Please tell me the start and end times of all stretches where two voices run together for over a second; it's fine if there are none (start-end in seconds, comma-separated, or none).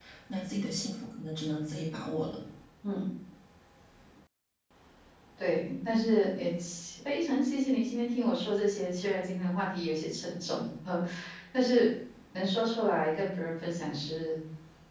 none